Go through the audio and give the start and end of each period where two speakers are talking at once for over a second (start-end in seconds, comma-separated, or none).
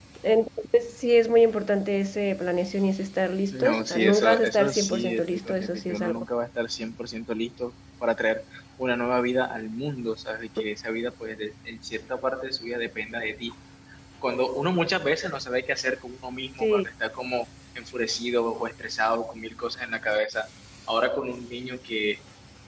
3.5-6.2